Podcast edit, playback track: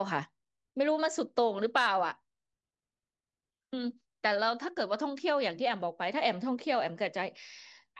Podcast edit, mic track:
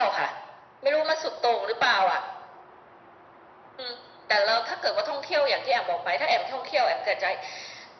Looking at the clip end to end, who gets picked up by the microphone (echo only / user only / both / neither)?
echo only